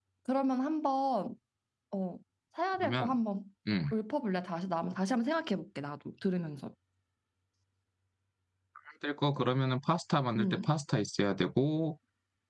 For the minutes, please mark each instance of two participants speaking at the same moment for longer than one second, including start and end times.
none

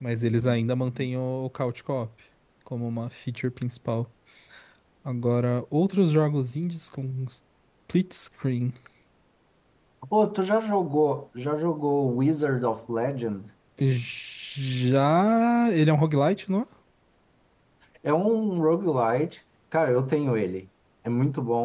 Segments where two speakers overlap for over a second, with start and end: none

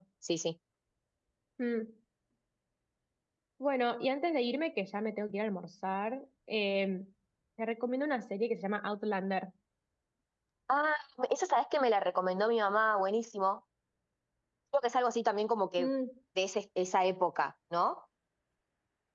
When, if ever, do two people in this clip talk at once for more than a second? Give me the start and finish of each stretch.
none

